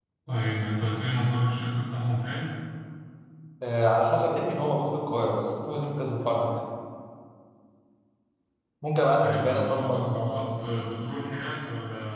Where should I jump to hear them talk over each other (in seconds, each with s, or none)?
9.2 s